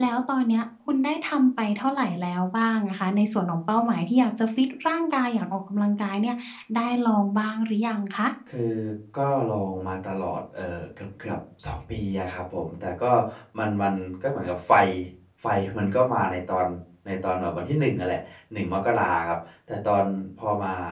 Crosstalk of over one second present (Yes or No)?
No